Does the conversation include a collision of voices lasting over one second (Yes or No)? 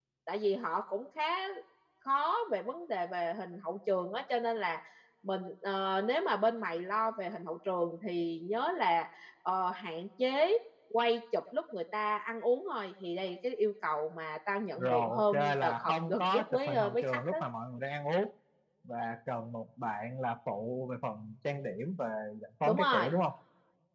Yes